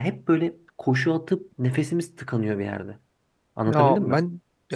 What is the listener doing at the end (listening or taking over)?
taking over